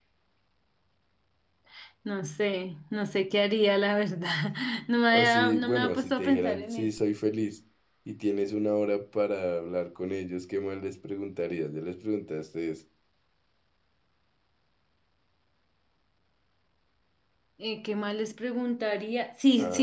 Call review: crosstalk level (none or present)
present